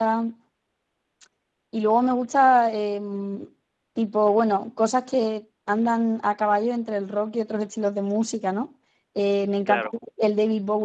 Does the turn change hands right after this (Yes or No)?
No